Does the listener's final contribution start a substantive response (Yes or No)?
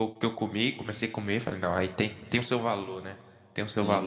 Yes